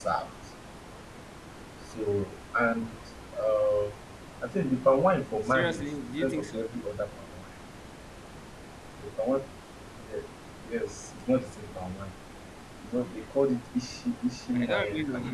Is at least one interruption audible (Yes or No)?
Yes